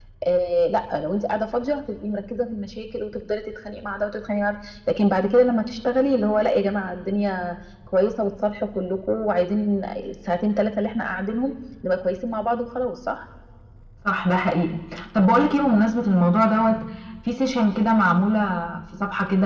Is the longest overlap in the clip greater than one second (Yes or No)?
No